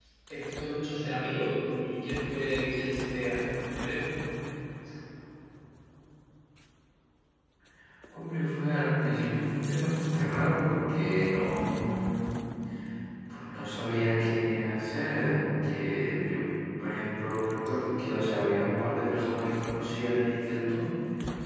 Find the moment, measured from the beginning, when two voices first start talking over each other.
none

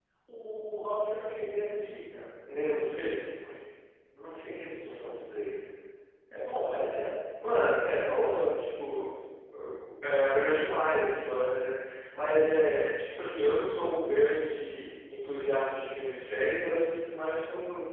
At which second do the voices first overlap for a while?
none

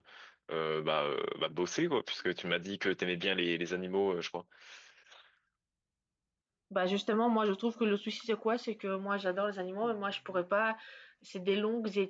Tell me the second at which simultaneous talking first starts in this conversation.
none

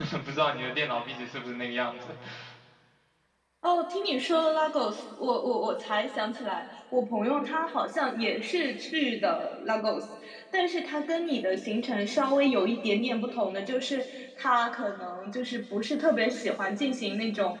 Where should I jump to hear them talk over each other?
none

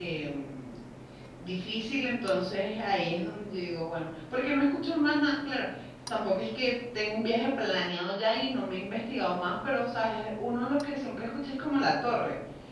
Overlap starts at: none

